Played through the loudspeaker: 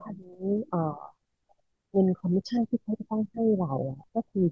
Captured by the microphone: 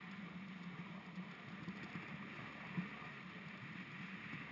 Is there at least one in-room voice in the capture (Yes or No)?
No